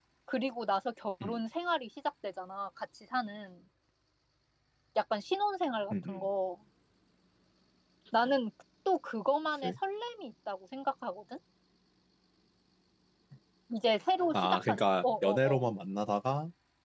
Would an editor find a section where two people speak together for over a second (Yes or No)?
Yes